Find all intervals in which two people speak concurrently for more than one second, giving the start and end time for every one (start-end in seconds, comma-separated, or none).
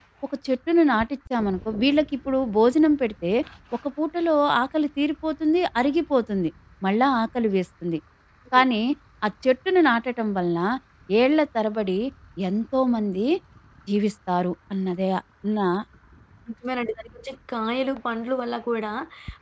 none